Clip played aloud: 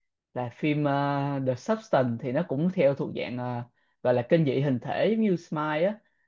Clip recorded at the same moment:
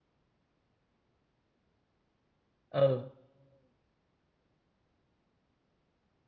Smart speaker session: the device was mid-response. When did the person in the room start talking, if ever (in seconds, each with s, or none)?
2.7 s